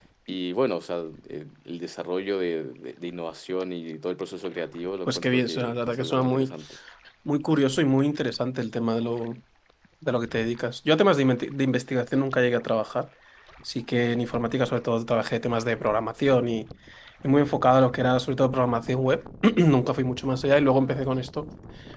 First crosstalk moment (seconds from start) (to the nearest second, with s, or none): 5 s